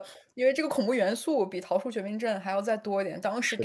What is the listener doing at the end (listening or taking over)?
listening